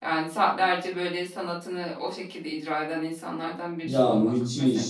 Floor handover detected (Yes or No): Yes